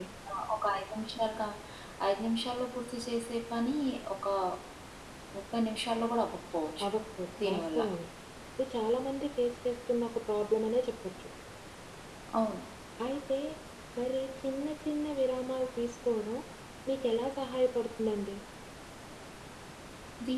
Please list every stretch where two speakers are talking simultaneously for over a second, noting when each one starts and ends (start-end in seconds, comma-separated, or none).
none